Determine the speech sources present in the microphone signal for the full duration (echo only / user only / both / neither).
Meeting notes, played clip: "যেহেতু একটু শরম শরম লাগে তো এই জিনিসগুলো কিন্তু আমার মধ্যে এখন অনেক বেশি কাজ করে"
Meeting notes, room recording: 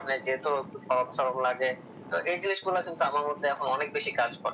echo only